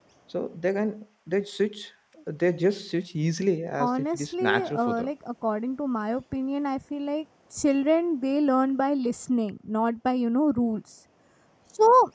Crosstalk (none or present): present